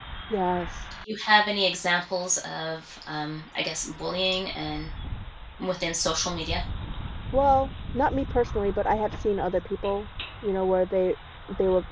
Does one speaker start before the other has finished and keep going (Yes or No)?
No